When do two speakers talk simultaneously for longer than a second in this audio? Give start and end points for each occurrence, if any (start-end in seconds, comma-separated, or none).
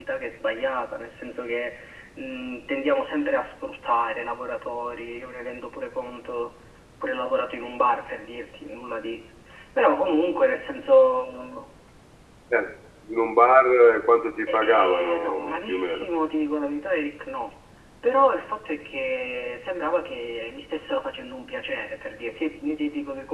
14.5-16.1